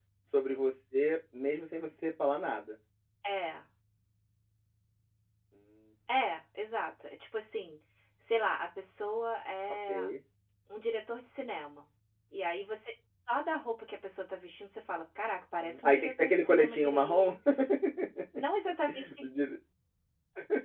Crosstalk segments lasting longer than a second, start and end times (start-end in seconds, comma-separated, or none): 15.6-17.3